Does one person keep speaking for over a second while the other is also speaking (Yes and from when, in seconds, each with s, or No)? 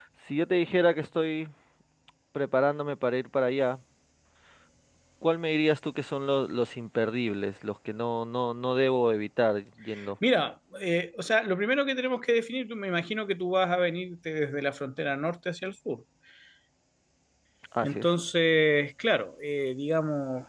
No